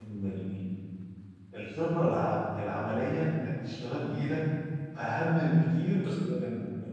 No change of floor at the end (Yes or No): Yes